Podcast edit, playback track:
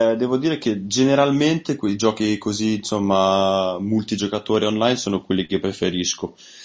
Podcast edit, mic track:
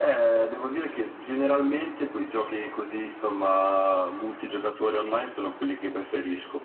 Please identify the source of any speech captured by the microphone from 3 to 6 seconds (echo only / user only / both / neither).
echo only